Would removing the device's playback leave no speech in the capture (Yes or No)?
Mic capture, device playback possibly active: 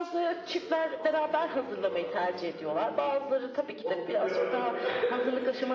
No